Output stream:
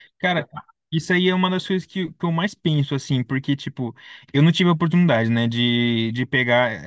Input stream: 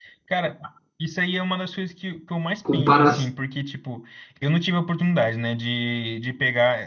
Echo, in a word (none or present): present